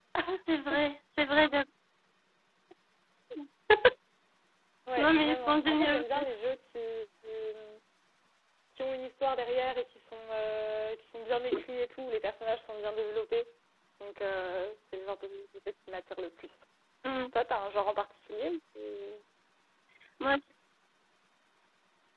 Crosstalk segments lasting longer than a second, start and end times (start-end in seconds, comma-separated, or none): 5.0-6.3